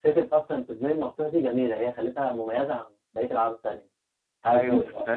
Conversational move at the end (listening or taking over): taking over